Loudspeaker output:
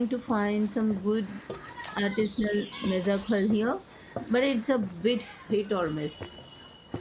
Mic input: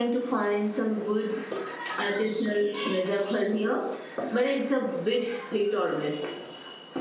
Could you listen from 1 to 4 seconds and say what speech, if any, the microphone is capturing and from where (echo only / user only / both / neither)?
echo only